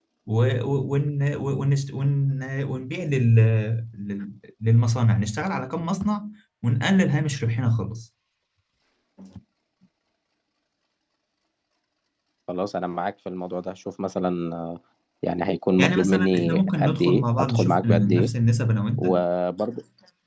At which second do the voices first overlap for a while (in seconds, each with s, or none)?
15.8 s